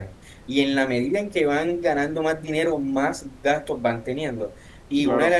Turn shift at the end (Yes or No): No